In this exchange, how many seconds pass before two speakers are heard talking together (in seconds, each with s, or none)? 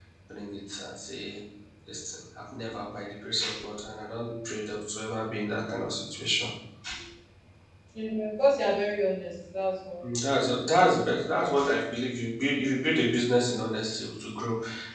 none